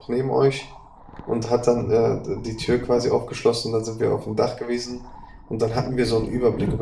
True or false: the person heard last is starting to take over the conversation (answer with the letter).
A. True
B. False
B